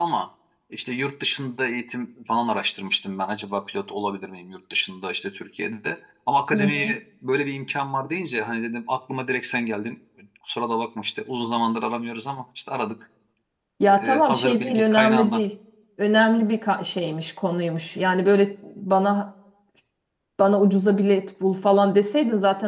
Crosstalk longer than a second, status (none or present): present